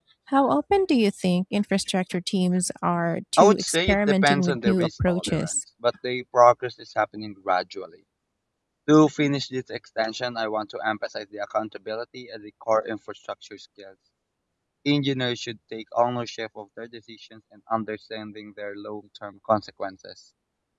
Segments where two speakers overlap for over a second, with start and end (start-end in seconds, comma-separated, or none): 3.4-5.5